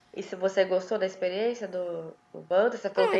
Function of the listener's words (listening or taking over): taking over